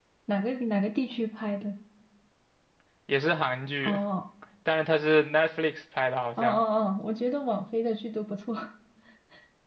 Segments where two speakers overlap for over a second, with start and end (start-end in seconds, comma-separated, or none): none